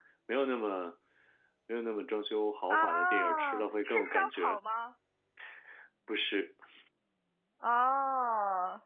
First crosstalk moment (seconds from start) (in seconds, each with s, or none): 2.7 s